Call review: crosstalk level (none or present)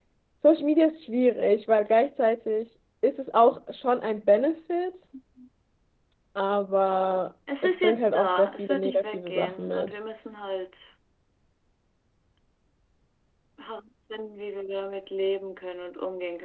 present